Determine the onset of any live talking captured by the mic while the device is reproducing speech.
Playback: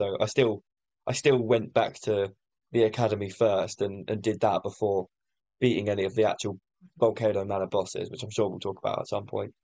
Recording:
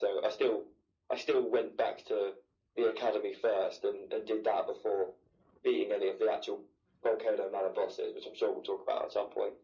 none

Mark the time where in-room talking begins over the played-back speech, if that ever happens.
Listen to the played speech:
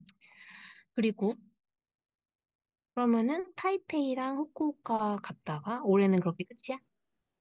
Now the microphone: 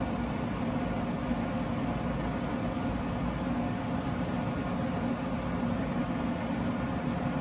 none

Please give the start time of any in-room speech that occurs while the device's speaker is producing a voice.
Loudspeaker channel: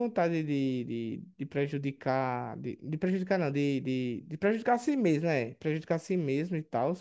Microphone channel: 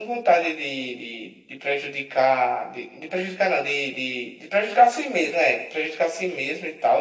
none

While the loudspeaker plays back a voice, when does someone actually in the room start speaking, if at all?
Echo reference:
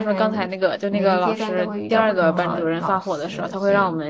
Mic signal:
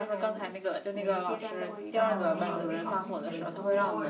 2 s

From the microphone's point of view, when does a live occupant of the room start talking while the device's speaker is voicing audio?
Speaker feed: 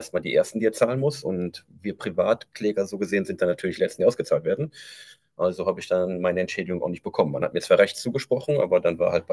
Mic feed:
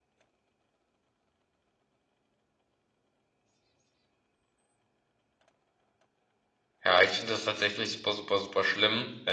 7 s

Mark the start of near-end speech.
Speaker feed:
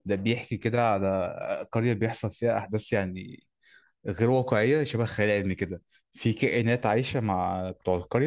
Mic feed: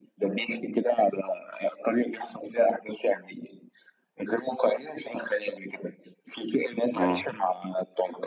7 s

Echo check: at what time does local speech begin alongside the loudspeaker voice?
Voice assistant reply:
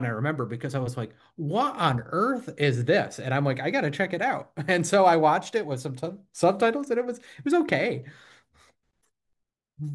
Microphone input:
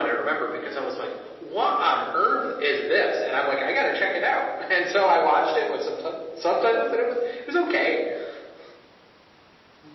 none

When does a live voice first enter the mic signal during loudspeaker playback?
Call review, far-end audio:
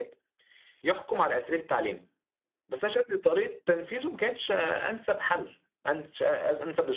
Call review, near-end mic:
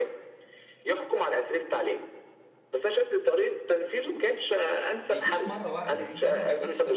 5 s

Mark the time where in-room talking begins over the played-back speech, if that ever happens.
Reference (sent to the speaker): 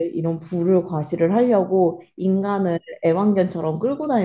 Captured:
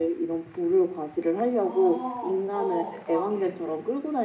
2 s

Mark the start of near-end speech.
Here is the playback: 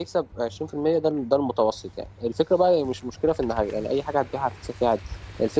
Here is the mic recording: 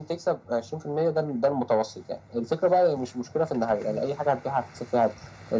none

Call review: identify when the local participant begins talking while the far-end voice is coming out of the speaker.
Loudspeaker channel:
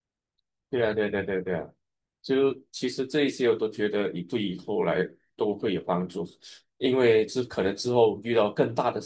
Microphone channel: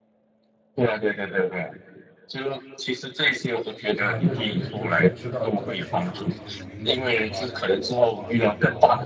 4 s

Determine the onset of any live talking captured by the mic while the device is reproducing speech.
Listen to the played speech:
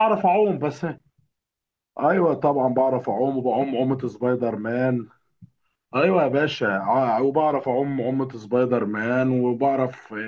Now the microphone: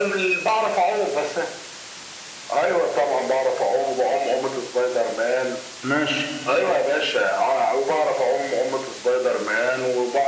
6 s

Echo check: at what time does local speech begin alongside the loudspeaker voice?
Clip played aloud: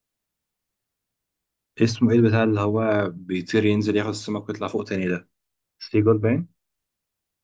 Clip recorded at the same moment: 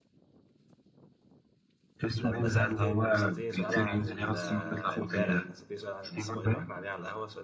2 s

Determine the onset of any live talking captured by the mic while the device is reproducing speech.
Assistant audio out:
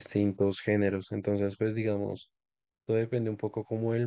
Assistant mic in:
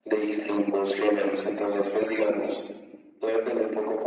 none

